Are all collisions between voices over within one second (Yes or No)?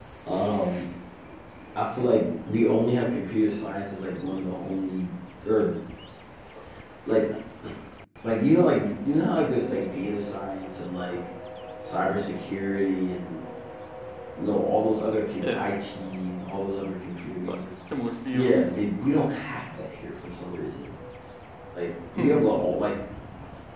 Yes